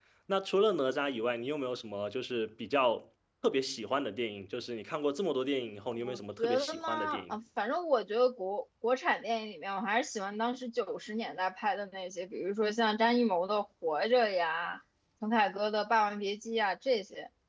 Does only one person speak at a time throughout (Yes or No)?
No